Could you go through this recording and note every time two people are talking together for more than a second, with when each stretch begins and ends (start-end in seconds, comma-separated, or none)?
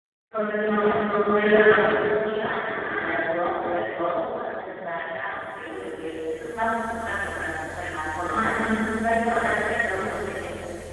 0.6-1.9